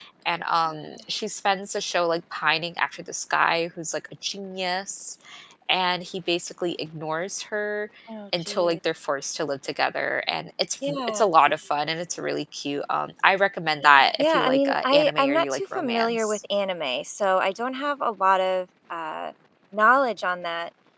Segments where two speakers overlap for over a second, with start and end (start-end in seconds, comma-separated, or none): 14.2-16.4